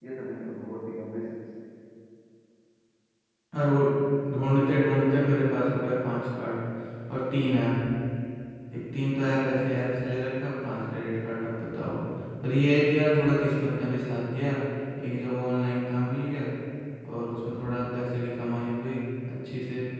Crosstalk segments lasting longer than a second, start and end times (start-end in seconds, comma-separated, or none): none